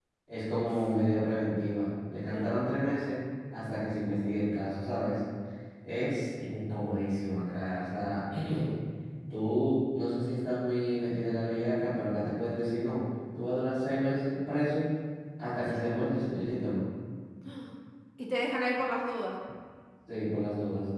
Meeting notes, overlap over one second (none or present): none